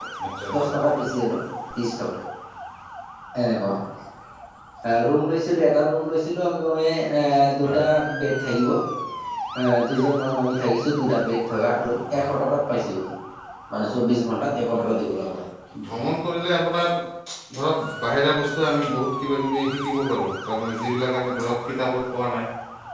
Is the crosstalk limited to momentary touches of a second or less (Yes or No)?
Yes